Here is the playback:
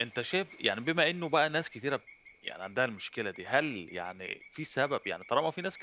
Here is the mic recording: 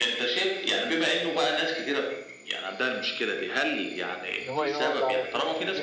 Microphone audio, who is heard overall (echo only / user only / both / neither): both